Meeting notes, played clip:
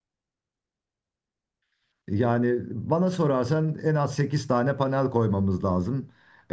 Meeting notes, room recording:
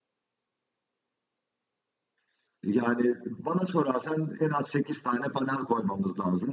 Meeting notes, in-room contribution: none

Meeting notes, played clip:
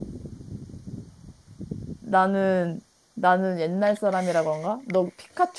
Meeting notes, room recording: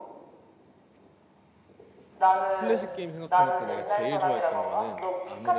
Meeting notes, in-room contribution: present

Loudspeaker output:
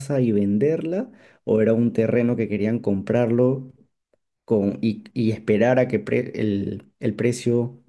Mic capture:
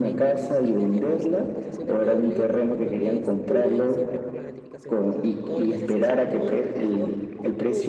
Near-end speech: present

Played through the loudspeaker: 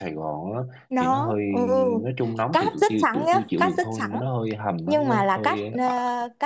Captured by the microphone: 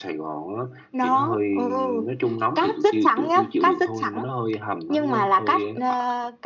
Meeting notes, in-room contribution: none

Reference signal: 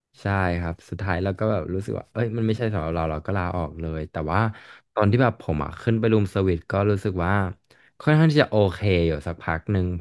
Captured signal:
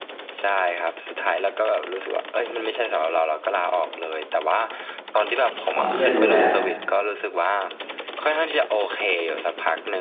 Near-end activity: present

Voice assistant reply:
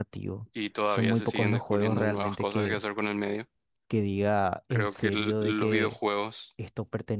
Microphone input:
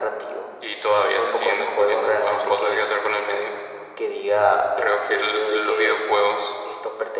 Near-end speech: none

